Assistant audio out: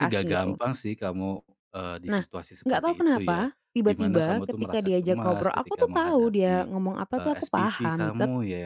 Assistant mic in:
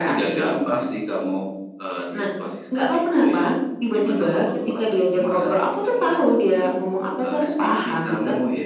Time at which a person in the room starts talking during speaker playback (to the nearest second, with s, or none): none